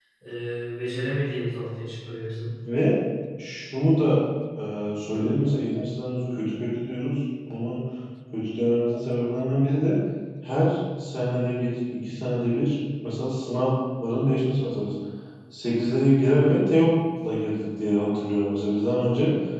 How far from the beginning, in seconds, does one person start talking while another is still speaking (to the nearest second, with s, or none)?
none